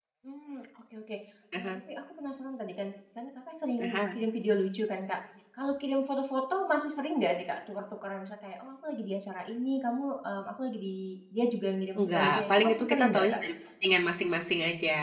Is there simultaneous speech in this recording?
Yes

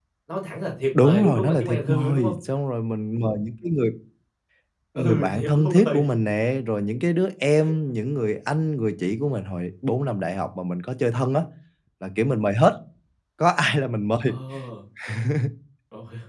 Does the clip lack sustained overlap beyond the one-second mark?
No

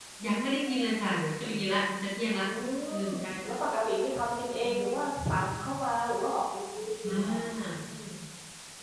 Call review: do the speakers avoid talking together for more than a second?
Yes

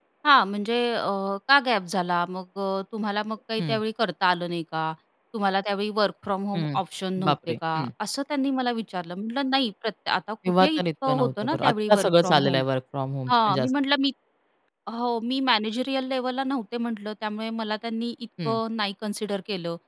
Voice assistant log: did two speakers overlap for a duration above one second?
Yes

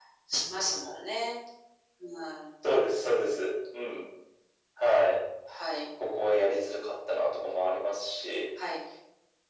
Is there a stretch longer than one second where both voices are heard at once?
No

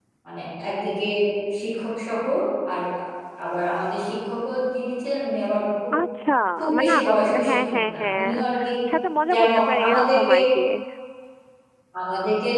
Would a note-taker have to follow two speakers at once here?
Yes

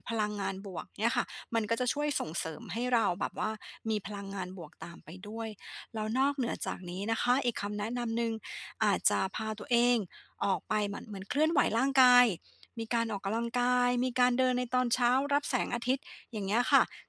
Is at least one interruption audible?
No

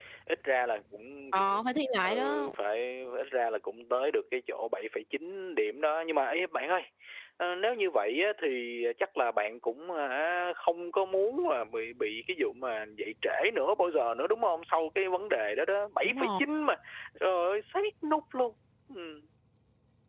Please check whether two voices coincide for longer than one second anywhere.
No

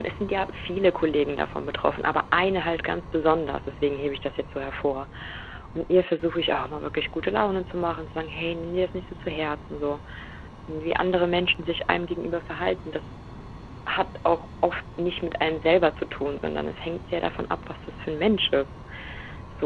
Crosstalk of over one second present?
No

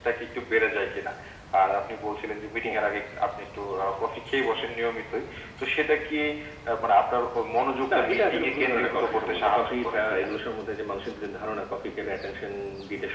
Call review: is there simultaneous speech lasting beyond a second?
Yes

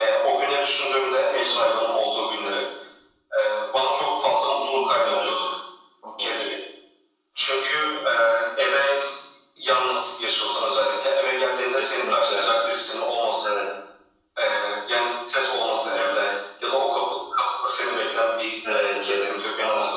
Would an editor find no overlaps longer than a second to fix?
No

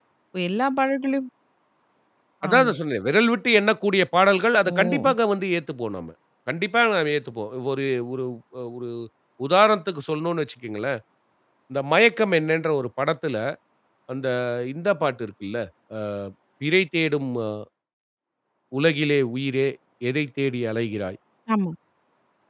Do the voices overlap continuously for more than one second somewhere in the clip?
No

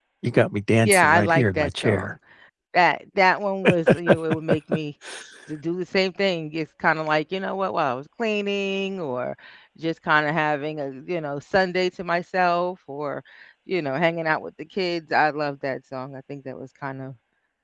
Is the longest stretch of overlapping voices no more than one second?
No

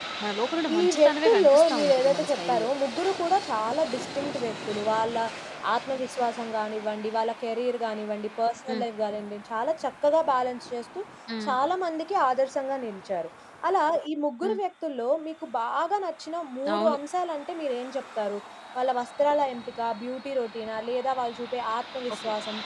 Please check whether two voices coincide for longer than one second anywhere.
Yes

